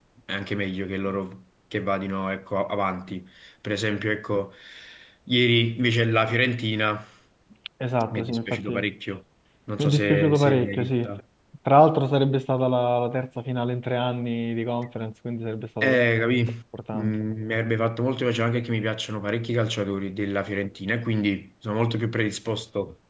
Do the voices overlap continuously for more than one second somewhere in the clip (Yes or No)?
Yes